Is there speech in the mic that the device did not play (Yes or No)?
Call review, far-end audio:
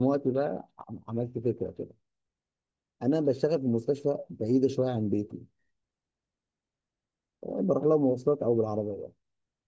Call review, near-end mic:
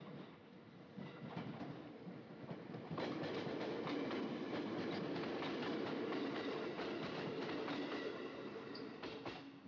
No